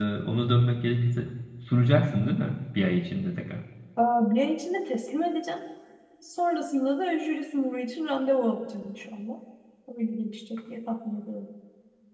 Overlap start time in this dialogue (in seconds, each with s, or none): none